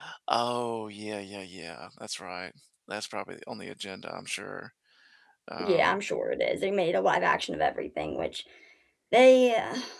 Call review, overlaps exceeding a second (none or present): none